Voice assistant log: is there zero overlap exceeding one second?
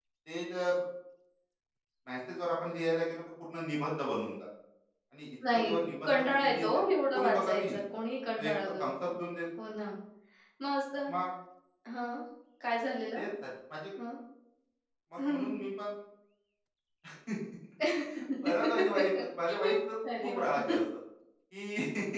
No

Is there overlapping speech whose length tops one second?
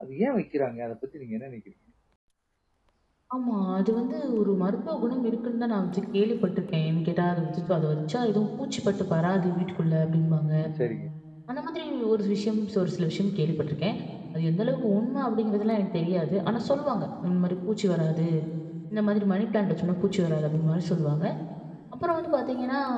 No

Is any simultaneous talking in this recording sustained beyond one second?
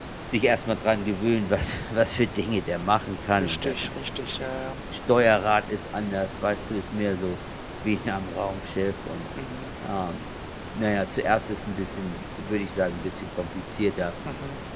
No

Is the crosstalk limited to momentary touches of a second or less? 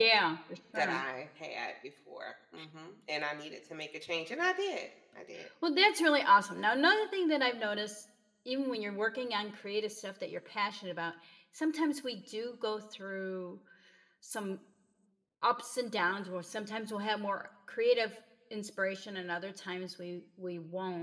Yes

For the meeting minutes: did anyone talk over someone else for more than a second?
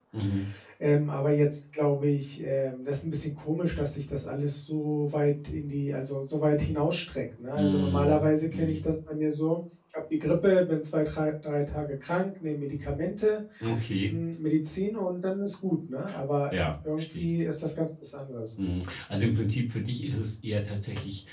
Yes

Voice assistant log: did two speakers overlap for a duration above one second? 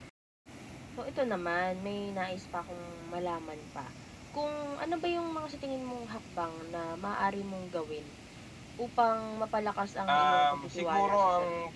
Yes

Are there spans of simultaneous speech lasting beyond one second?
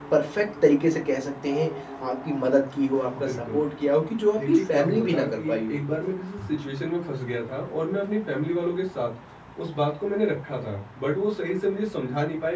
Yes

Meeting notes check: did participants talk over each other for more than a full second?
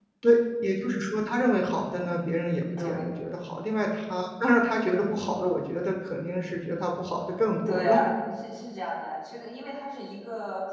No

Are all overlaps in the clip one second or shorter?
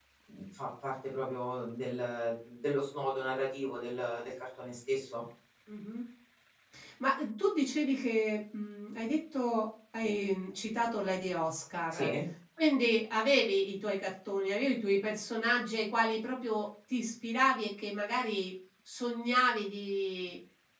Yes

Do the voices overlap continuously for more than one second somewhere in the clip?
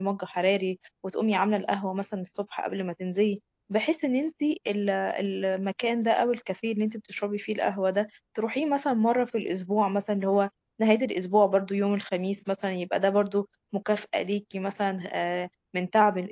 No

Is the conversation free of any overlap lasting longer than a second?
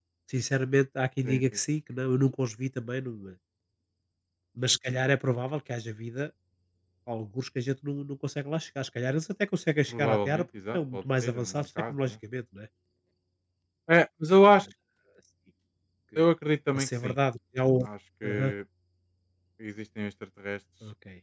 No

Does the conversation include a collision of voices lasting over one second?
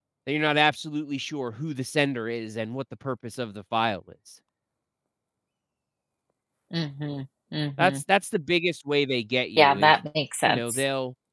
No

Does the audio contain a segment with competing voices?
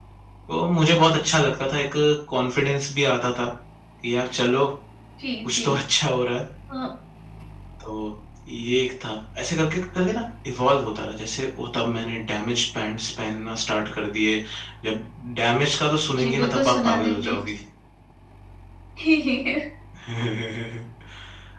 Yes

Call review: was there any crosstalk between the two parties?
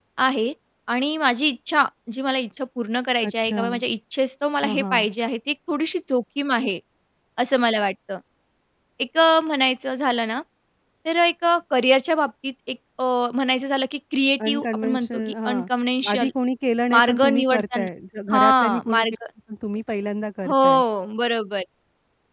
Yes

